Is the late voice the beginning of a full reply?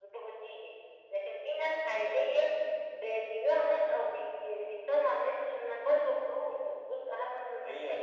Yes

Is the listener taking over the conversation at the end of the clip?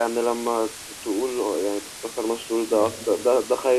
No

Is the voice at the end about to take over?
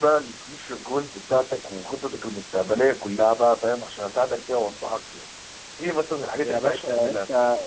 Yes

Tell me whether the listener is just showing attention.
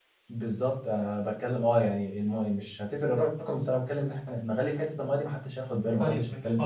No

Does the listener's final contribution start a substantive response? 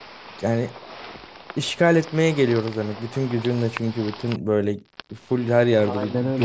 No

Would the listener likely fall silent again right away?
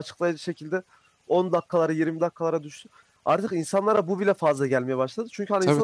Yes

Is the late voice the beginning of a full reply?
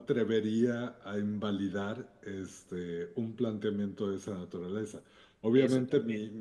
No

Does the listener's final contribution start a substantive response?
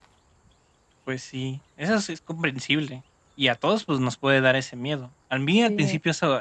No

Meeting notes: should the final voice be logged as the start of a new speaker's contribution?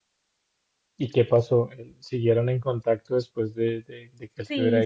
Yes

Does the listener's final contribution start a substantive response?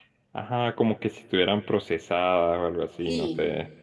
Yes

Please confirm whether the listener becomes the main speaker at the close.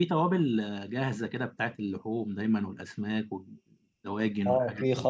Yes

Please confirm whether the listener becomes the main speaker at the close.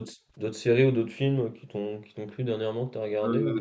Yes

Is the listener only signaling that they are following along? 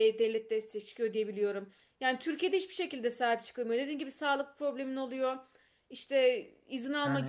Yes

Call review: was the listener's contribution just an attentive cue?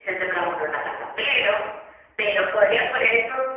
Yes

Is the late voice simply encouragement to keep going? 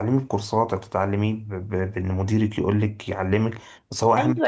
No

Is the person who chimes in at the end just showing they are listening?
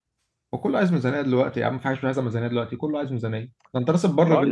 No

